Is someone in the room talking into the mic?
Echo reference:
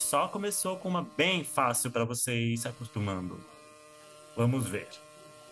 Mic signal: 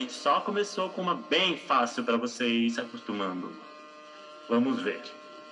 No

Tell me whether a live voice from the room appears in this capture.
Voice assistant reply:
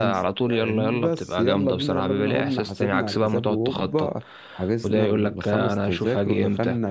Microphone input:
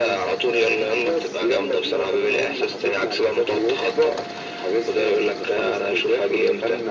No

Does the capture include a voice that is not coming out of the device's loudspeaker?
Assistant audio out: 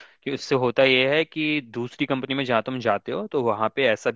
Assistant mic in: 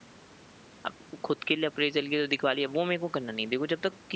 Yes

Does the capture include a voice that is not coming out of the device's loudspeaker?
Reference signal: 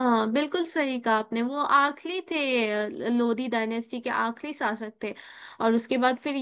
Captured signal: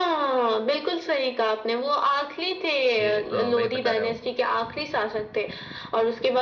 Yes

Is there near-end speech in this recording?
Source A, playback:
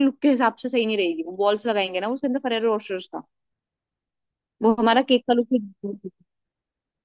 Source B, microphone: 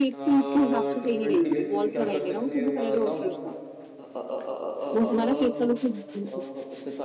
Yes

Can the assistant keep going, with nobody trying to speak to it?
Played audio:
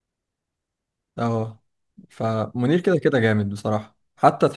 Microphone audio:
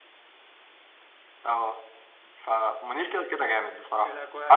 No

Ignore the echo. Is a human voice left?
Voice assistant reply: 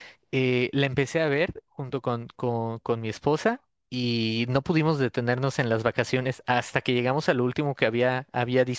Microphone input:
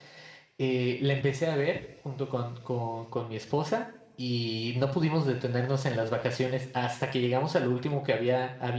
No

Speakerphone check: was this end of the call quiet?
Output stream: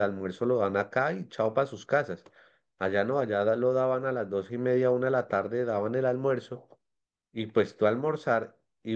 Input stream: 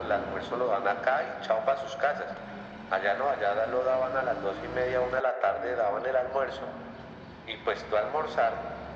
Yes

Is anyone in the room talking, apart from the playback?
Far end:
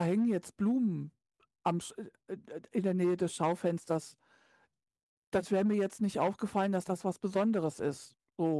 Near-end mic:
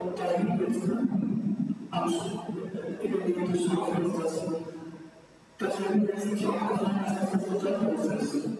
No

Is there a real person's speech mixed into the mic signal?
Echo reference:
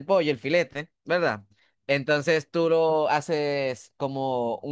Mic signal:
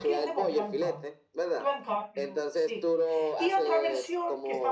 Yes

